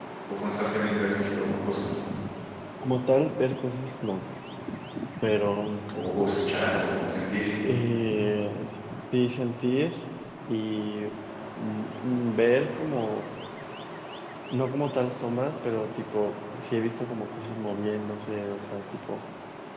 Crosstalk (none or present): none